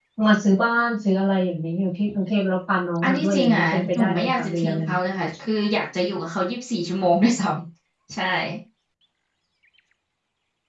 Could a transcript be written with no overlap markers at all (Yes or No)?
No